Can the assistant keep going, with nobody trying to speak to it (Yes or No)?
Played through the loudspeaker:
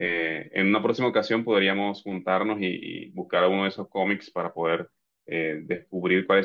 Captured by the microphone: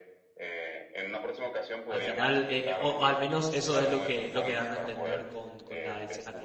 No